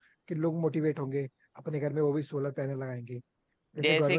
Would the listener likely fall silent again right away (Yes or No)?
No